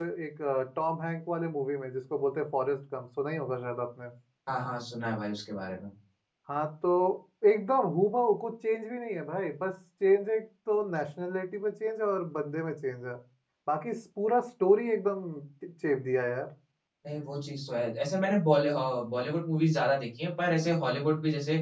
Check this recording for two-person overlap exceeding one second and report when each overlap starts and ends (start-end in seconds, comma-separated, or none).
none